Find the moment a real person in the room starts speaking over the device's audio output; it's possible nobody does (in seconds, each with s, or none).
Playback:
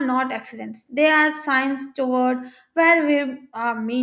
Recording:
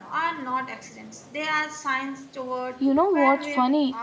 2.8 s